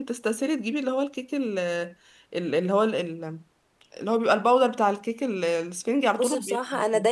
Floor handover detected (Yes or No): Yes